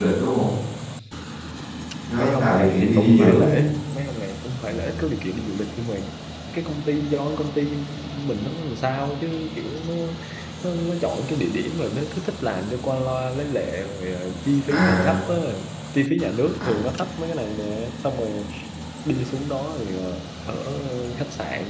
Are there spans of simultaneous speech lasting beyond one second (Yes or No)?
Yes